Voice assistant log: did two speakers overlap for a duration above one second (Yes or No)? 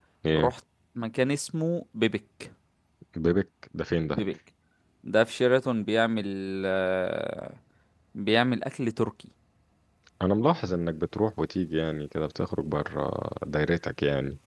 No